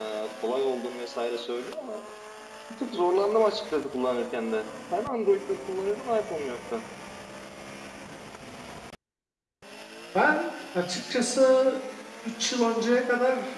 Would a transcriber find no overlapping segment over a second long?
Yes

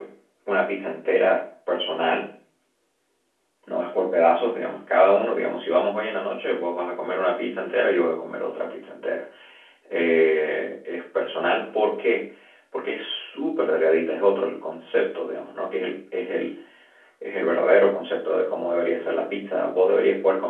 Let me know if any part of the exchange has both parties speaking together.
No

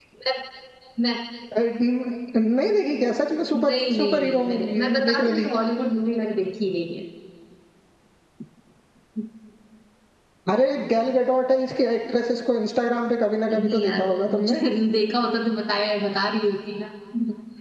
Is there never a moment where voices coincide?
No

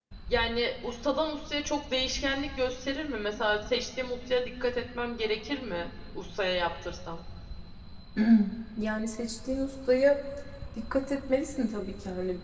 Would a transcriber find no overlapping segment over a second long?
Yes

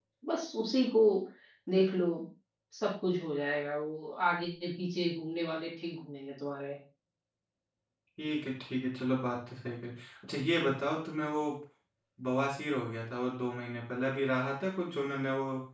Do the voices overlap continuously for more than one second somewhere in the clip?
No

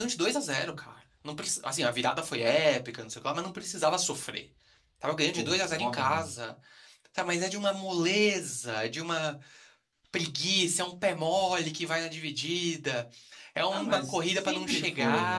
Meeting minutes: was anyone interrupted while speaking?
Yes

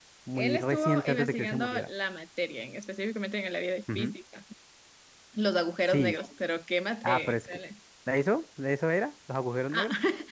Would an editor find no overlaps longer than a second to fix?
No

